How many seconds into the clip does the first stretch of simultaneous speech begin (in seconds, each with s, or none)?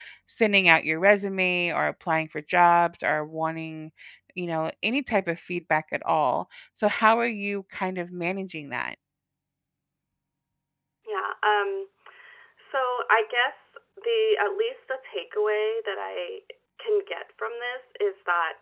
none